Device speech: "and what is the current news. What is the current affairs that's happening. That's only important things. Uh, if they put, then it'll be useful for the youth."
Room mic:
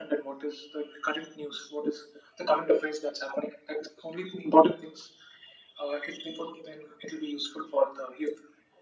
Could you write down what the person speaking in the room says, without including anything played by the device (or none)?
none